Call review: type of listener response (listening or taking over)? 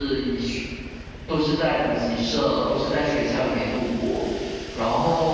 listening